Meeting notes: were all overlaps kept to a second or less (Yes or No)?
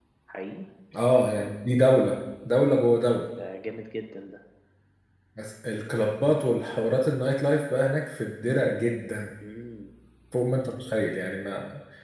Yes